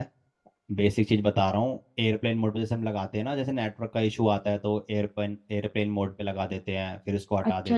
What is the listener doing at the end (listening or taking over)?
taking over